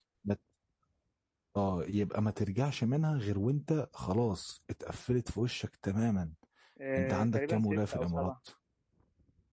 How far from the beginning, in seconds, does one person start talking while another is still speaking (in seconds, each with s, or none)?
7.0 s